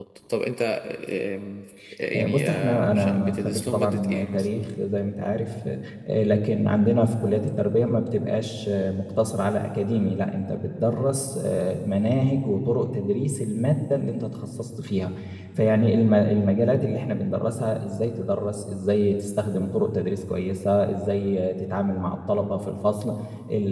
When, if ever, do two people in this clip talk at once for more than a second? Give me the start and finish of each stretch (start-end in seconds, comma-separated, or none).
2.1-4.5